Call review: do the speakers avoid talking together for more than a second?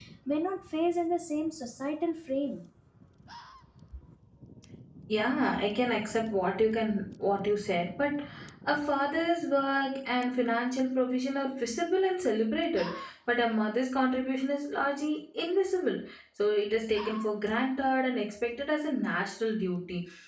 Yes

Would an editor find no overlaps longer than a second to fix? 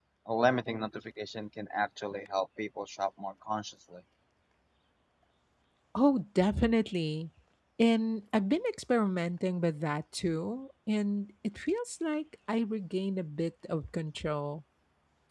Yes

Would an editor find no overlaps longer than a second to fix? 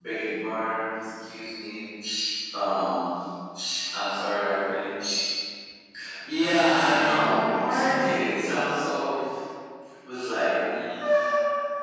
No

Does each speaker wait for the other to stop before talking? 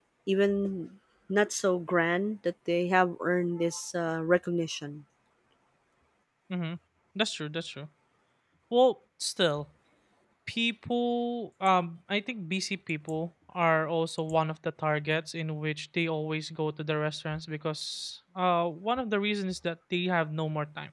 Yes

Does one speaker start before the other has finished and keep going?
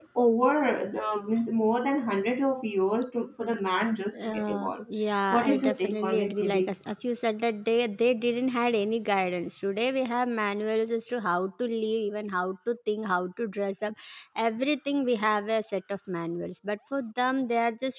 Yes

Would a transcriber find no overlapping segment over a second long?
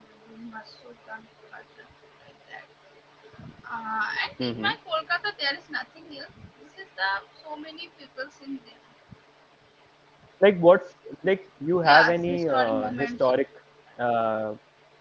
No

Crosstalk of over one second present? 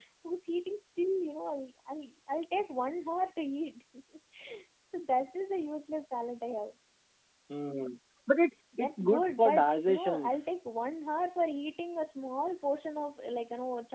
Yes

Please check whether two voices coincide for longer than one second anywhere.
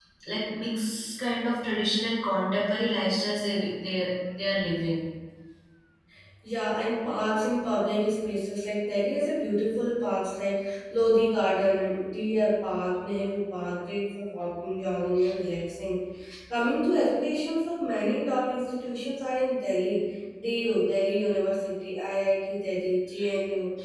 No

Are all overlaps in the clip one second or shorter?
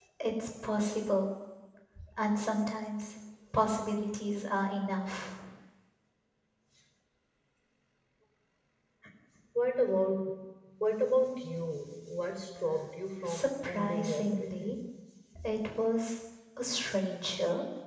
No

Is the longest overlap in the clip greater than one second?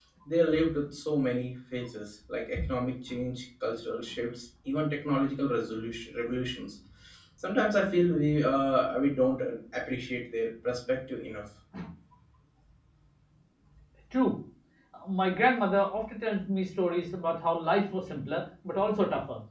No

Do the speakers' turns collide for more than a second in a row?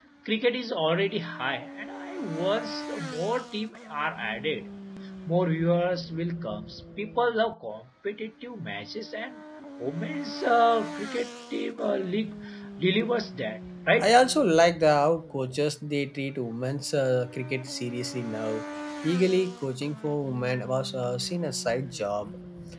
No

